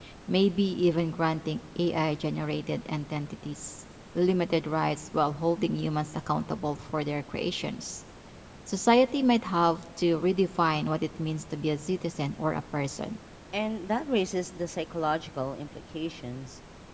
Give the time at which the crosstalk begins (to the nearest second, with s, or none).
none